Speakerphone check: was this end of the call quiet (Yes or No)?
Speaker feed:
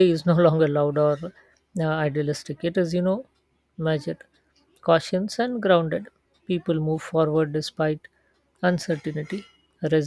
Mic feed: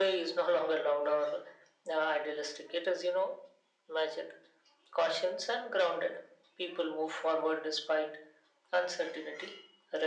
Yes